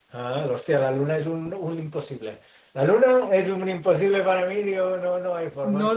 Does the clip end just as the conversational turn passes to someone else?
Yes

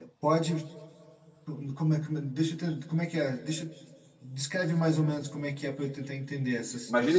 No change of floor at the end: No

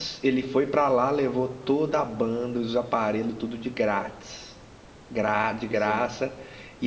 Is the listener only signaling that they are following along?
Yes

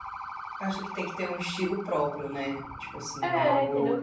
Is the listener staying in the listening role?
No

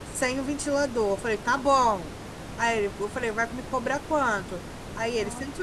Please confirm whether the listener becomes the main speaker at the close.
No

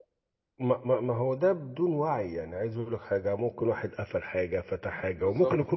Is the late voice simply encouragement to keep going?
Yes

